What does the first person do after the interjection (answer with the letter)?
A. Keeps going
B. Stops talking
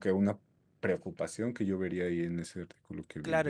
B